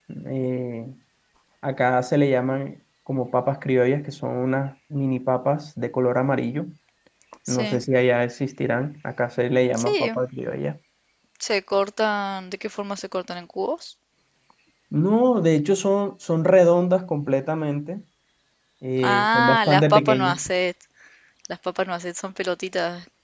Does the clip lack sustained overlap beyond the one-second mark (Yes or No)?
No